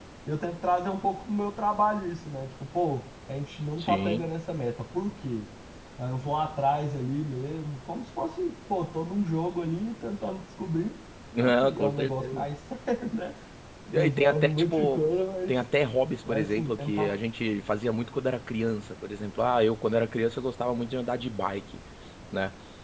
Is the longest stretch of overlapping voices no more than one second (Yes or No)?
No